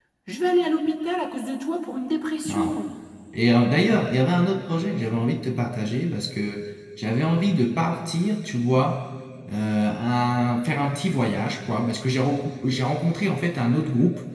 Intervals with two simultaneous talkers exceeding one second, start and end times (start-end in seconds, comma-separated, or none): none